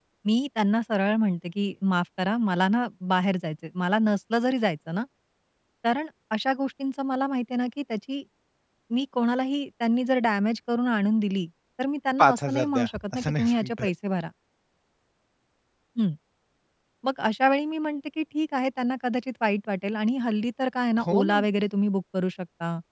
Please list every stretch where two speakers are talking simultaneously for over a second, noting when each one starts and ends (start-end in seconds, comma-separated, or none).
12.2-13.9